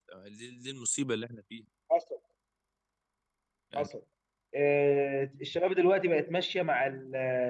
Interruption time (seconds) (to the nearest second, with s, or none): none